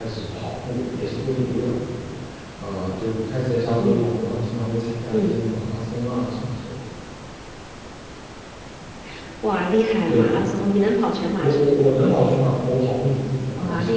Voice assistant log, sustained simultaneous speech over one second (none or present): none